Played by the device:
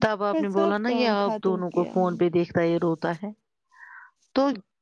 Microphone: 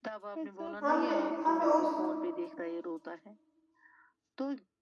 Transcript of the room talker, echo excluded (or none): ہم نے ہمیں اس